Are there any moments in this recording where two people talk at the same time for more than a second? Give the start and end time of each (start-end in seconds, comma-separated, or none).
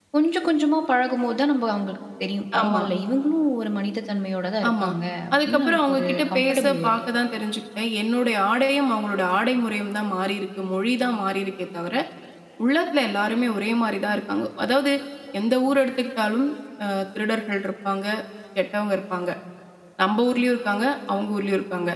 5.4-7.0